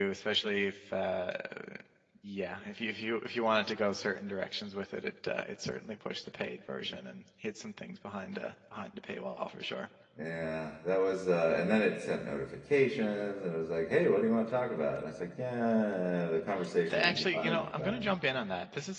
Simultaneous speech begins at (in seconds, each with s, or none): 16.9 s